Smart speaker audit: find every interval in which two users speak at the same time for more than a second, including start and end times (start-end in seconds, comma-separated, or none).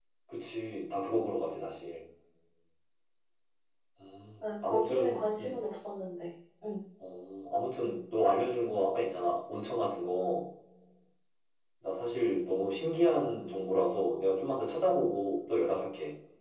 4.4-5.7